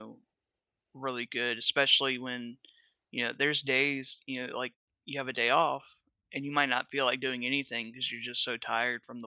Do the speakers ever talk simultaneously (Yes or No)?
No